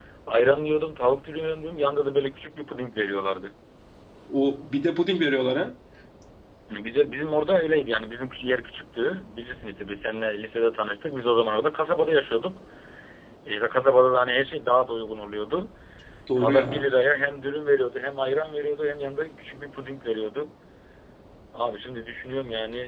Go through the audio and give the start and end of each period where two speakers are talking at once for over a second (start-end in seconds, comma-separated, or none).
none